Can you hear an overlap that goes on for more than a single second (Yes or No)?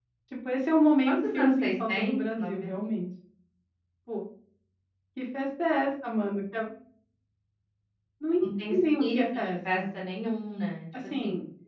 Yes